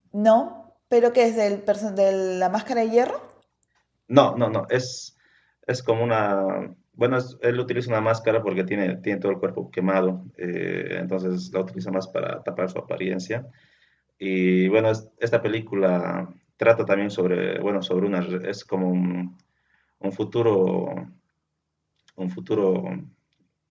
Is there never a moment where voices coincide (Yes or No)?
Yes